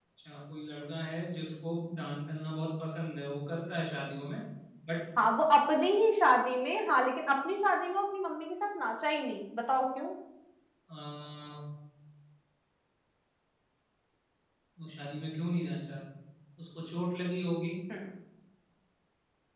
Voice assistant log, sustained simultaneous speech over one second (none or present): none